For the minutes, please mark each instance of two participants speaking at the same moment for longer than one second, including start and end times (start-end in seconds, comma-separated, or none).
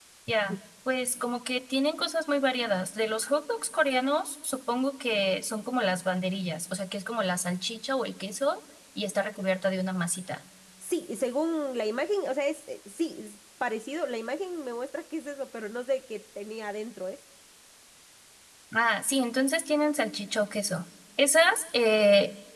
none